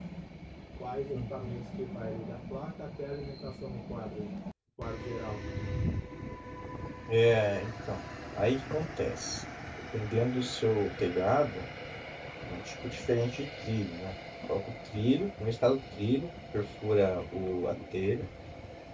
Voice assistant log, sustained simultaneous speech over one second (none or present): none